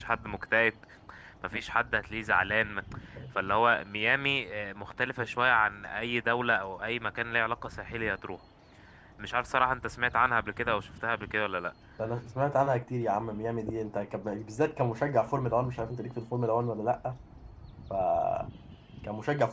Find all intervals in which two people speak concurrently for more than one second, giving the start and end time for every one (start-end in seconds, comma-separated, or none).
none